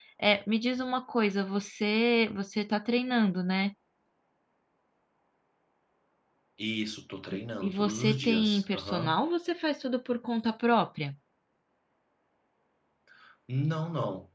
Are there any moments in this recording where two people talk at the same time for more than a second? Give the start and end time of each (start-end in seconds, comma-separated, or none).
7.3-9.2